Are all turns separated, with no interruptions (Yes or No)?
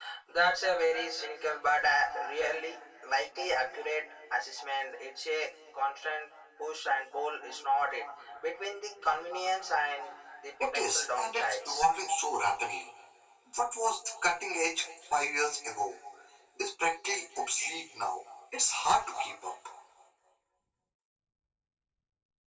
No